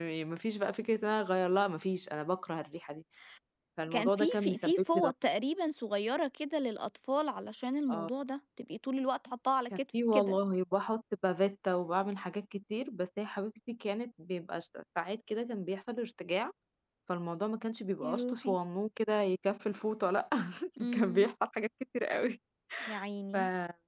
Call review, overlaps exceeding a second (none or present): present